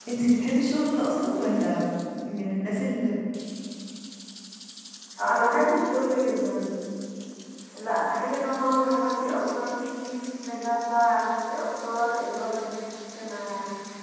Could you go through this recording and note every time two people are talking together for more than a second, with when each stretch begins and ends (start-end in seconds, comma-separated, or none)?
none